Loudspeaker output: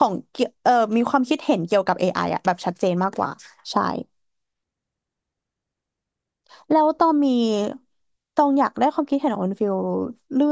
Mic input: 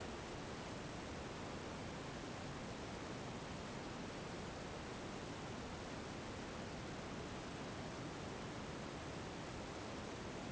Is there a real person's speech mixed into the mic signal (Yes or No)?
No